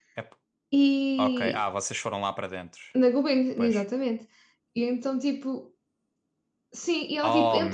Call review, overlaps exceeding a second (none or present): none